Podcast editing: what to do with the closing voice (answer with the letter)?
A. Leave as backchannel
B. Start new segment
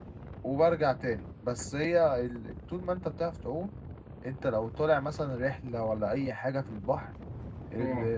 A